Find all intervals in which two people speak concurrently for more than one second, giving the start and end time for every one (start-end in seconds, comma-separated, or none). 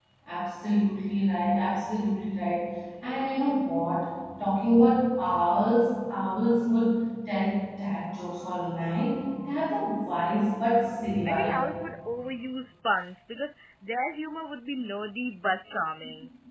none